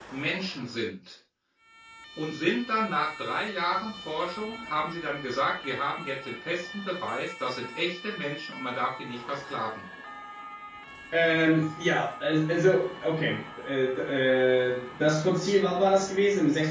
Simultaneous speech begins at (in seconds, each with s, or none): none